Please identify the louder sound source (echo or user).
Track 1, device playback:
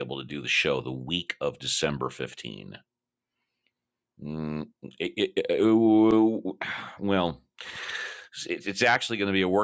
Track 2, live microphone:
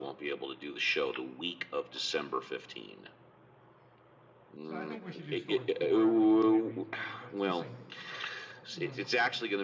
echo